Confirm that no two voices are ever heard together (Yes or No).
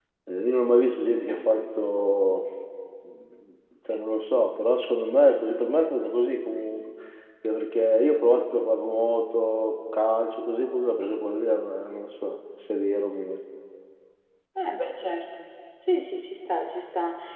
Yes